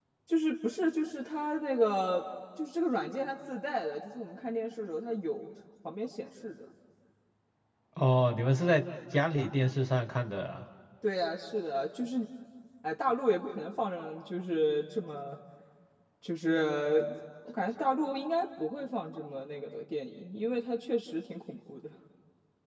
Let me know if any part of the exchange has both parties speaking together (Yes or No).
No